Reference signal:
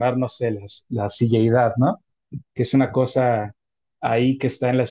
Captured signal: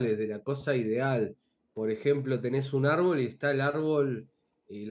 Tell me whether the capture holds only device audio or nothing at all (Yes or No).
No